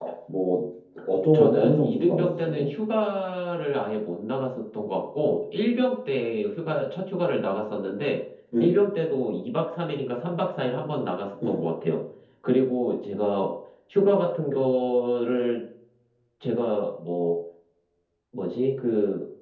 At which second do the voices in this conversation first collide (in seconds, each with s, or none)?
1.3 s